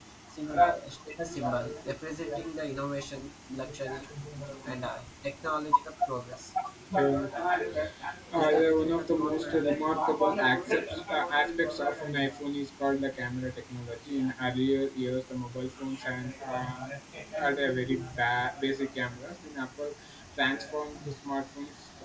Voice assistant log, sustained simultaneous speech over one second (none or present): present